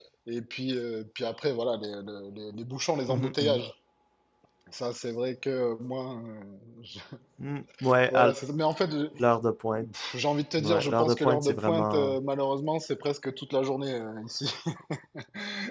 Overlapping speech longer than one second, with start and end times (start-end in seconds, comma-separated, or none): 10.6-12.2